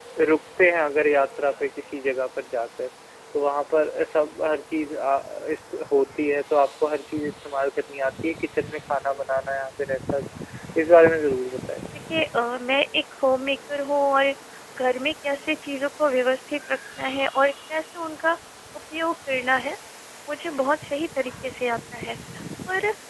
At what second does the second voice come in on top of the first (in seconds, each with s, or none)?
none